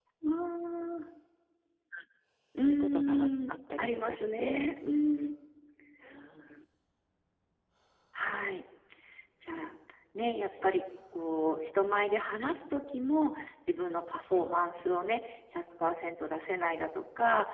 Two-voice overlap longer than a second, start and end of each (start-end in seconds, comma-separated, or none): 2.6-4.7